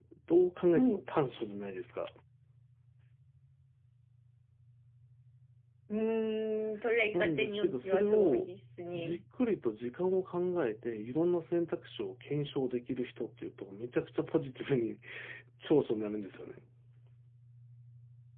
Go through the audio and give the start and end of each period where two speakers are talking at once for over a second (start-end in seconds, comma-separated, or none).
7.1-8.5